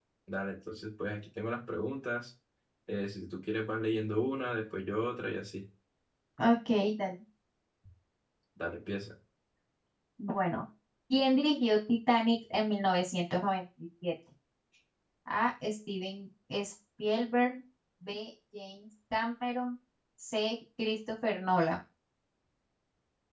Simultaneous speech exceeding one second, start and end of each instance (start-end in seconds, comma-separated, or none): none